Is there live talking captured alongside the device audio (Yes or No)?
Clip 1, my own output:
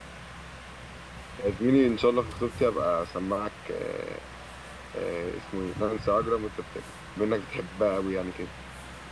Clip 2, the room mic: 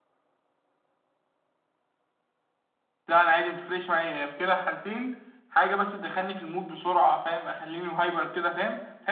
Yes